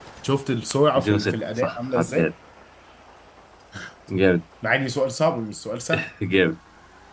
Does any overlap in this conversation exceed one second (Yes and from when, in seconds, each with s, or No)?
Yes, from 1.0 s